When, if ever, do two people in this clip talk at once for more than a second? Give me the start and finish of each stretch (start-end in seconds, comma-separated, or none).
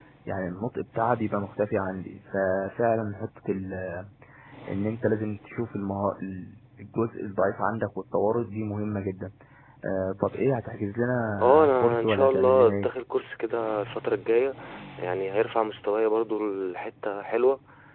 11.4-12.9